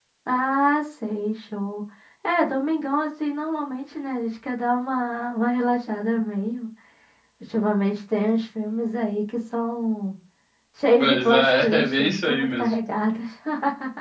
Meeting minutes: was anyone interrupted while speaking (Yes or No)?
Yes